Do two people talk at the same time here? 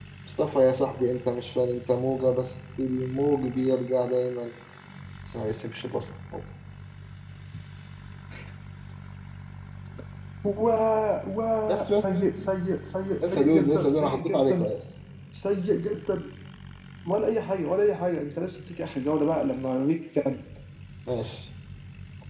Yes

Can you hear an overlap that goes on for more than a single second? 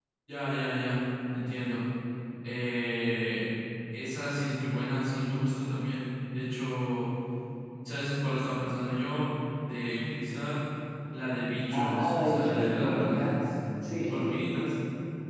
Yes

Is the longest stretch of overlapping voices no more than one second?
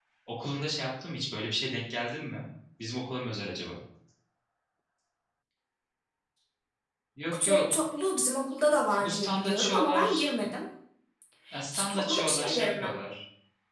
No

